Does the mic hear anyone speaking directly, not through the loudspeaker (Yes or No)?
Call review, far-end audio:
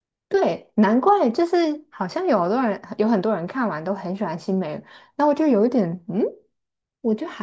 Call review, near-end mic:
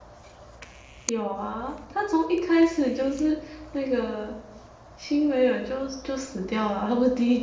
Yes